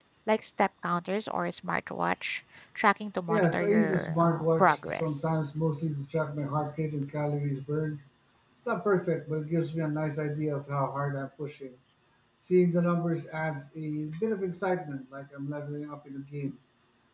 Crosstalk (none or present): present